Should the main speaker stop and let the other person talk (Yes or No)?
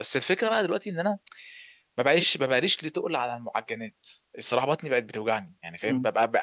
No